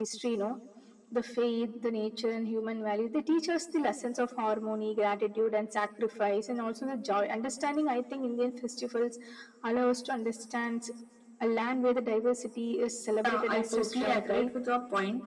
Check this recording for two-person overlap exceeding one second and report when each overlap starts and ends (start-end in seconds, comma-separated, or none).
13.2-14.5